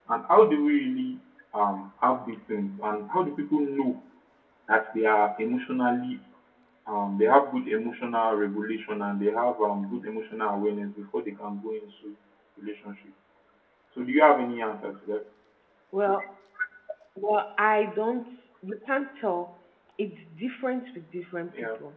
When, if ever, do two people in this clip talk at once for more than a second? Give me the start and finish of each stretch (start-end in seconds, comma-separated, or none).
none